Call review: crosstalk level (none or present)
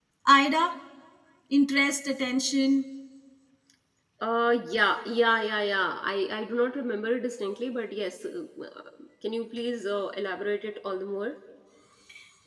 none